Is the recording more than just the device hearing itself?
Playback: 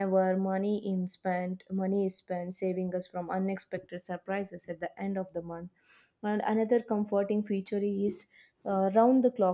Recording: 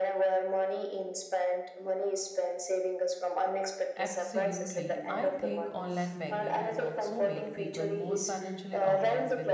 Yes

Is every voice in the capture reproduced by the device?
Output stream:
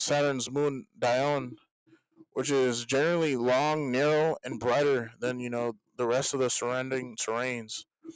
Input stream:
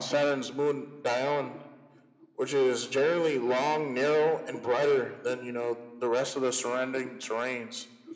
Yes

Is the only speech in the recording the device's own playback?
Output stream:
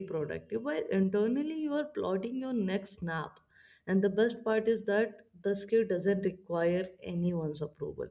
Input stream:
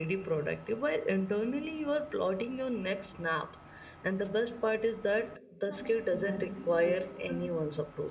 No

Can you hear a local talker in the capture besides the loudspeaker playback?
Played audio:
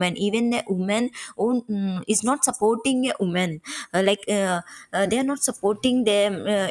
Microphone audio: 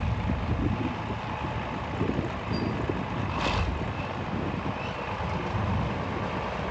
No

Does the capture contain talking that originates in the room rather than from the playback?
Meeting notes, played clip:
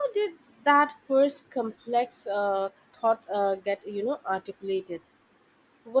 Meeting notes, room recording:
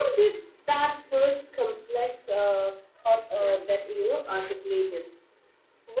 Yes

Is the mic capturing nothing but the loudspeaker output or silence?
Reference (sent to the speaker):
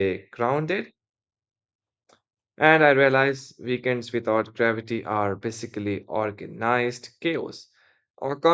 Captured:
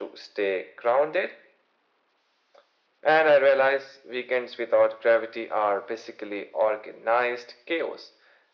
Yes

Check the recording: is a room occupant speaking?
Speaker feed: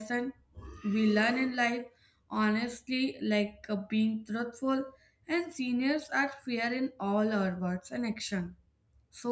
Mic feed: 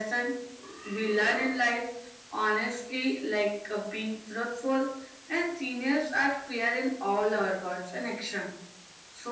No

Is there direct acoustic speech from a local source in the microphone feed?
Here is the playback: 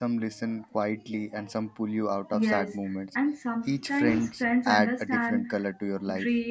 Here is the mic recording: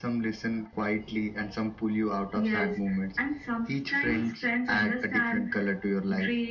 No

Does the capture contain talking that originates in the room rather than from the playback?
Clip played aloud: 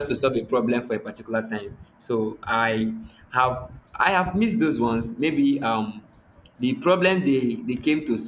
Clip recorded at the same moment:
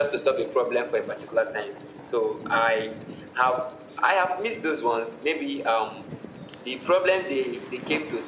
No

